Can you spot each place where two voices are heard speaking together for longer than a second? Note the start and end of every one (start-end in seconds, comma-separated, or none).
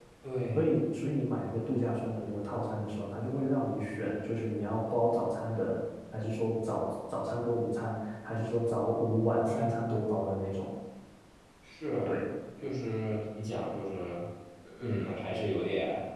none